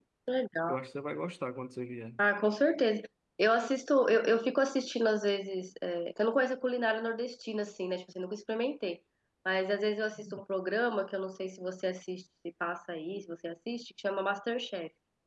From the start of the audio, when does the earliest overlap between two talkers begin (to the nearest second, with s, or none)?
none